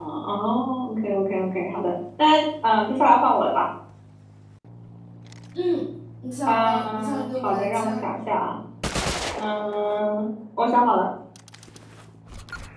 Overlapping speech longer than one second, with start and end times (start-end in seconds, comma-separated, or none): 6.5-7.9